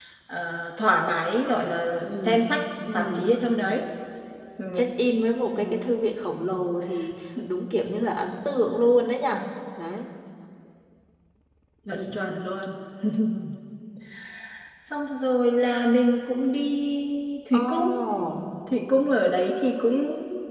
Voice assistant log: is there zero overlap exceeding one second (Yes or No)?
Yes